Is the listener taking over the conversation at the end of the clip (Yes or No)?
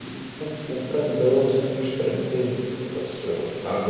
Yes